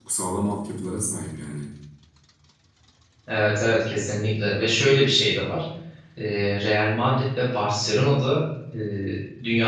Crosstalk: none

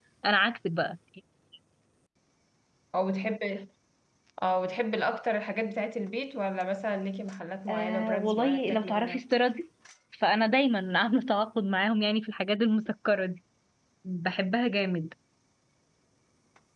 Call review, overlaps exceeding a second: present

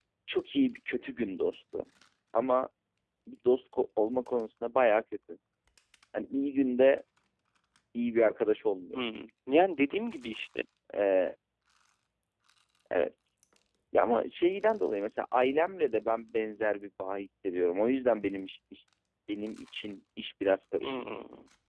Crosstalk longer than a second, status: none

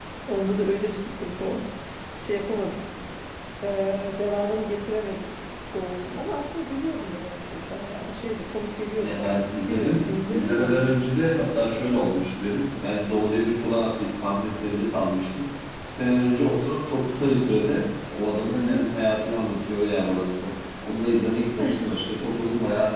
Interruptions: present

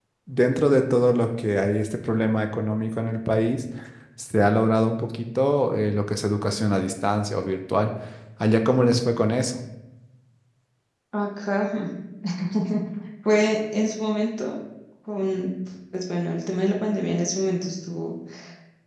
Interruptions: none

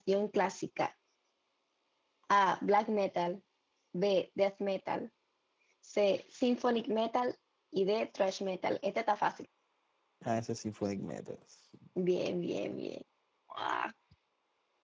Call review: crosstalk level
none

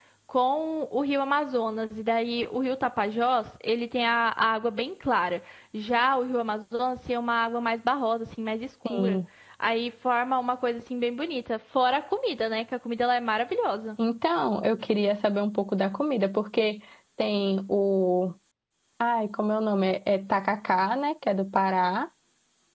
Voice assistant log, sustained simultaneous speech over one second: none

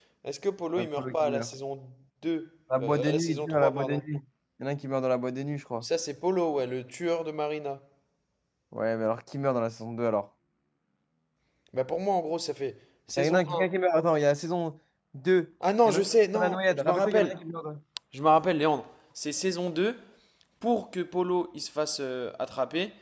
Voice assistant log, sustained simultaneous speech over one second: present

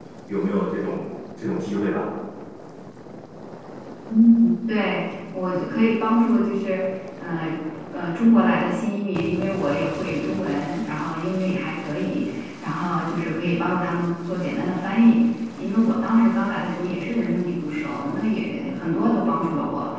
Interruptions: none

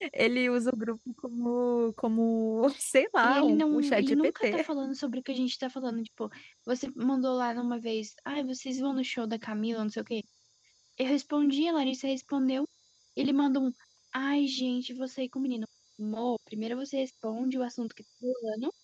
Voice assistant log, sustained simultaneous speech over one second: present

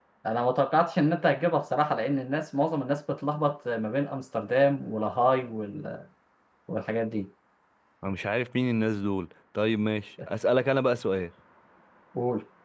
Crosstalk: none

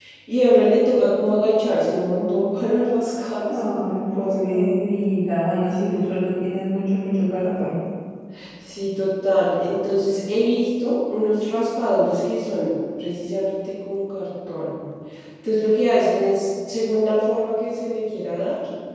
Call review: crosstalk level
present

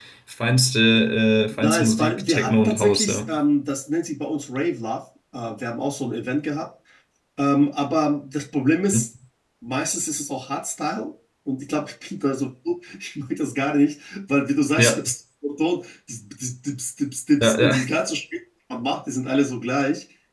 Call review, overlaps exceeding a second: present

